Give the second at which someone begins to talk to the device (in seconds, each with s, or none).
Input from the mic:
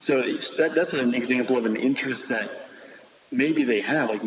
none